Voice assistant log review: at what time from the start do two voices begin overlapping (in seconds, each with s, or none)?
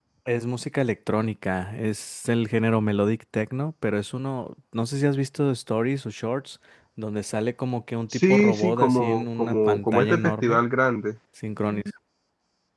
8.1 s